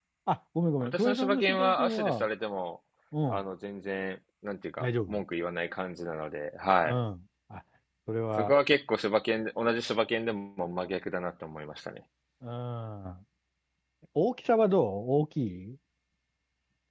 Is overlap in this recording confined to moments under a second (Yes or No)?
No